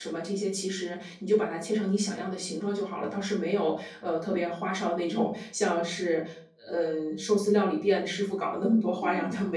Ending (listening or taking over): taking over